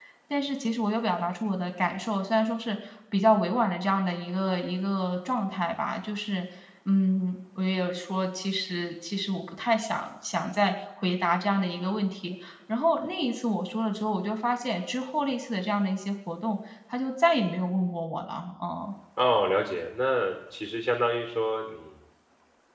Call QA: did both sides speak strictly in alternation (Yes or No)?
Yes